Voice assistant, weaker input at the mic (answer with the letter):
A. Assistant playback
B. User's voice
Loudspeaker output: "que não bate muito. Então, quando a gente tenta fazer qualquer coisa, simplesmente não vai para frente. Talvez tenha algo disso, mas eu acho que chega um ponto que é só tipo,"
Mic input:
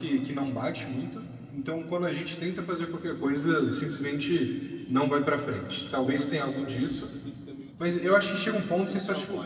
B